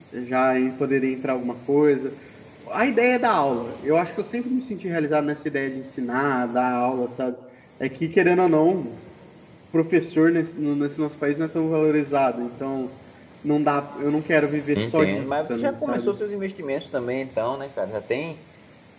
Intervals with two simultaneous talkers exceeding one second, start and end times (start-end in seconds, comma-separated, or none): 14.8-16.1